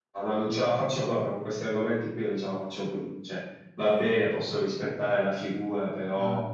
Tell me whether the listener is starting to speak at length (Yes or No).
No